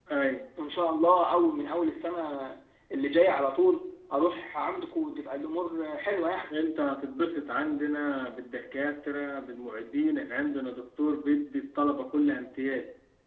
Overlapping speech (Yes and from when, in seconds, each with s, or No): No